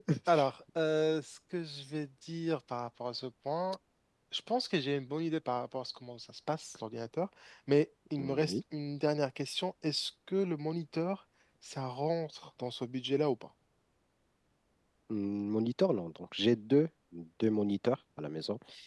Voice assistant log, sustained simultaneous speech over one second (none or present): none